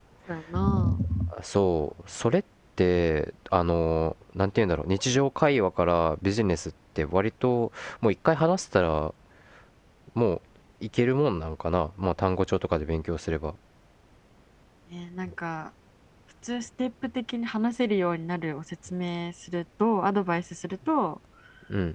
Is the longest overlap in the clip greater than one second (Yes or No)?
No